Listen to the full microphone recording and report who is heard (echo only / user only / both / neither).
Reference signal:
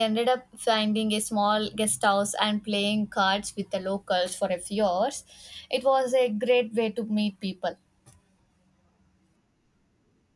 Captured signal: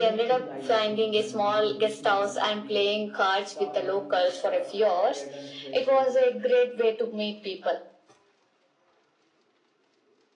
both